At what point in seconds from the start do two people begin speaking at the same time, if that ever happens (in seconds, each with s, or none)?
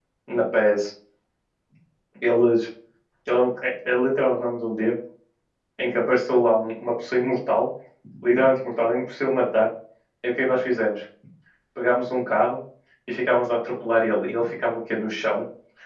none